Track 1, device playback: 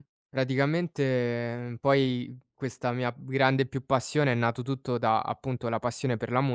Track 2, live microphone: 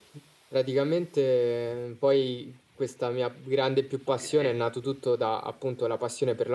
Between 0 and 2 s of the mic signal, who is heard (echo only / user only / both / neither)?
echo only